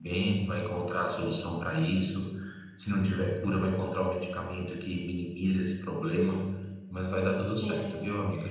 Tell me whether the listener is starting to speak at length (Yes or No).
Yes